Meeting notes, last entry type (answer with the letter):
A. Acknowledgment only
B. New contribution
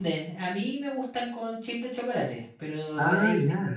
A